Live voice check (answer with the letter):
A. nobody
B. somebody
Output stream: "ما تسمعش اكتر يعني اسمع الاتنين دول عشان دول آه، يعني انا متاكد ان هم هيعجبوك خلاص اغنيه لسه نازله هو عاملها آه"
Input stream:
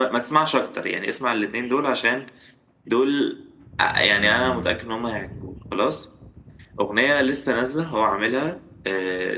B